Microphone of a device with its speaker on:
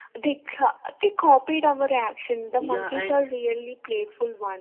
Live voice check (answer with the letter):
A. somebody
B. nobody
A